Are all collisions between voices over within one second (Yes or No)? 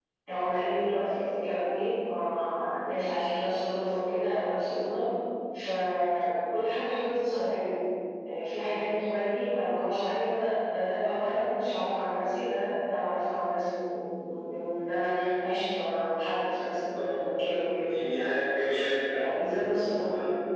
Yes